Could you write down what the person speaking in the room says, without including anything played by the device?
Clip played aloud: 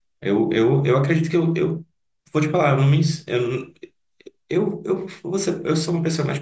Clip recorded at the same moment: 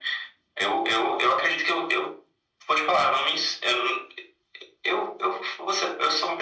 none

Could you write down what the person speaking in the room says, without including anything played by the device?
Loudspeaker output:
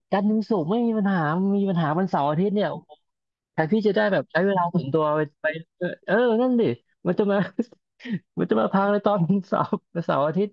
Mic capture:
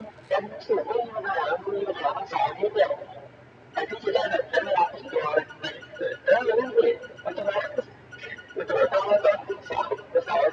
none

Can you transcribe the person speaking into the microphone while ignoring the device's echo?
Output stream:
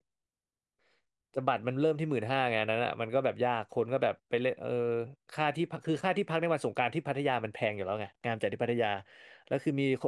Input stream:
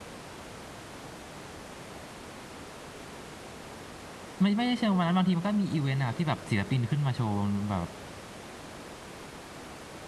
ไม่ไม่ได้เชิงวันนั้นบางทีมันก็มีอีเวนต์นะครับที่แบบศิลปินขึ้นมาโชว์บนแบบ

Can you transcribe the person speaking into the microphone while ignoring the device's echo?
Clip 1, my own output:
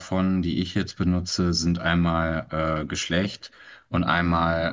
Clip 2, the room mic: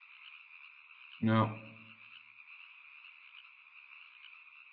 ja,

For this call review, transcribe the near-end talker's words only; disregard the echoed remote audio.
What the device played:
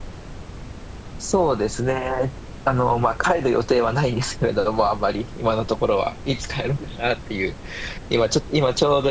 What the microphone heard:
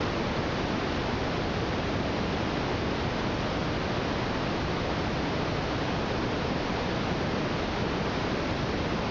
none

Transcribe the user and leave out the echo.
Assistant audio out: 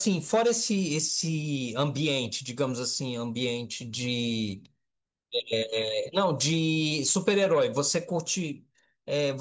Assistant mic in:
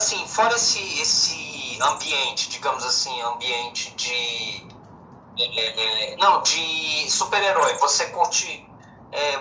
none

